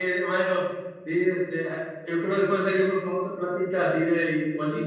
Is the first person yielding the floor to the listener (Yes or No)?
Yes